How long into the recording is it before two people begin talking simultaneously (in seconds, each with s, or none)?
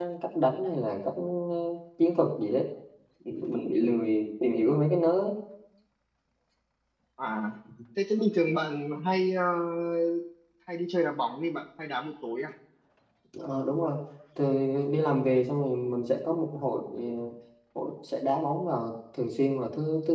none